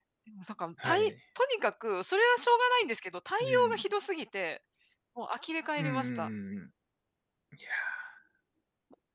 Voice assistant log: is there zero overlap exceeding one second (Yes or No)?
Yes